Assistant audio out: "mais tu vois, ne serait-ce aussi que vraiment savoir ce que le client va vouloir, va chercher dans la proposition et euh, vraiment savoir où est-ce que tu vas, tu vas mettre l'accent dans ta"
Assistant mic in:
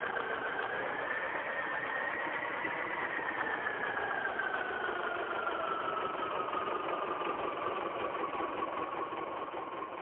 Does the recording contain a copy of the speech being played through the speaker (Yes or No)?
No